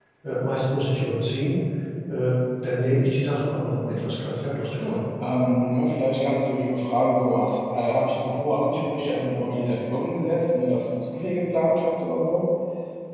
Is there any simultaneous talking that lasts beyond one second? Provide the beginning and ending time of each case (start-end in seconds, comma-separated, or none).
none